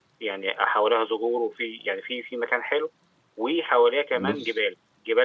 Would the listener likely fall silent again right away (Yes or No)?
Yes